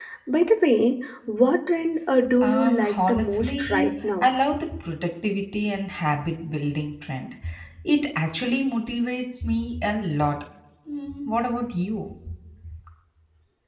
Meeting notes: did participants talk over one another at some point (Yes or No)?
Yes